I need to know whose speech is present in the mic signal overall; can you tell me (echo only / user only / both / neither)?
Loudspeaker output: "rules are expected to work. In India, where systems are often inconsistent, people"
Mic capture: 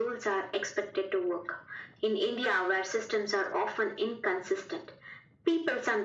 echo only